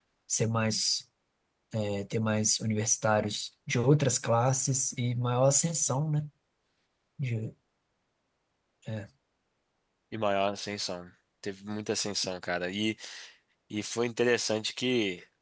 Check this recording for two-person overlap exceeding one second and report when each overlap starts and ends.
none

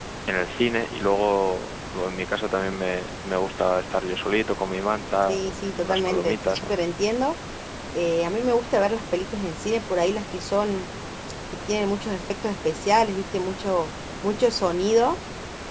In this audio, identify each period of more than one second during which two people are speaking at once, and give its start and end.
5.3-6.7

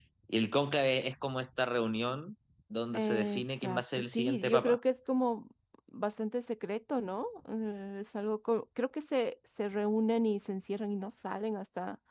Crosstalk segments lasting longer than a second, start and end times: 2.9-4.8

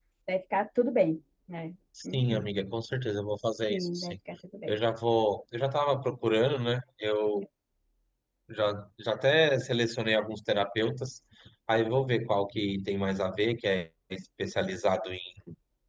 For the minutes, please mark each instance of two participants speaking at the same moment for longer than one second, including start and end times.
none

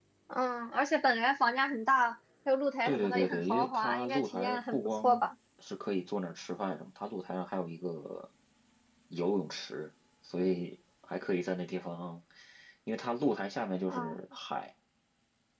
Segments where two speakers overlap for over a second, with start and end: 2.8-5.2

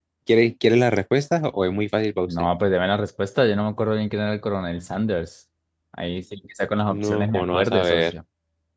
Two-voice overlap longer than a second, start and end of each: 6.9-8.1

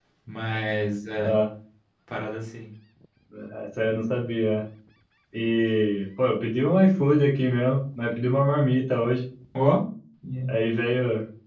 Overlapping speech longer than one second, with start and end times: none

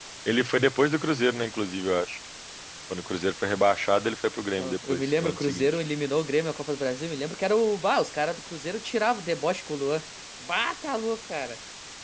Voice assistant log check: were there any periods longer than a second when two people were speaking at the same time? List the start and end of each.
4.6-5.8

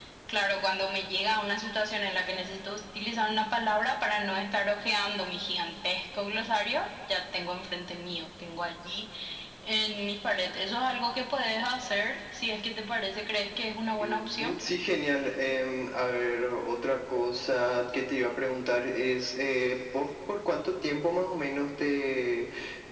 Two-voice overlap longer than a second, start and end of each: none

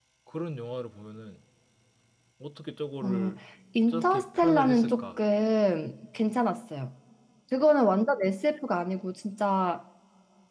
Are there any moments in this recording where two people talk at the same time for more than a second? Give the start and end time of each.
3.9-5.1

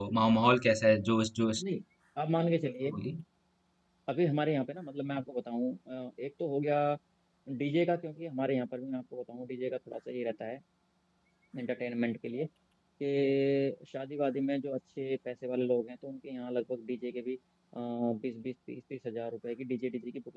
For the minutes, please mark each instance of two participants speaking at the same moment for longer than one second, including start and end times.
none

